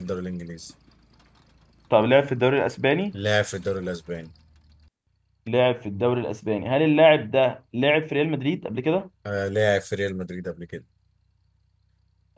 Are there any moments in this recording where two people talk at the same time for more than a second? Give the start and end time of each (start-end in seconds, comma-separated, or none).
none